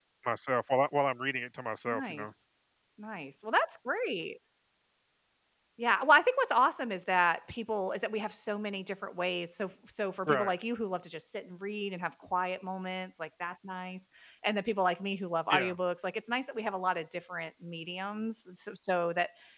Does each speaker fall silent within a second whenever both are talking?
Yes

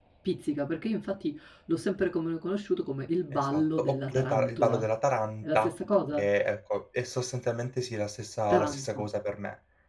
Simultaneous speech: Yes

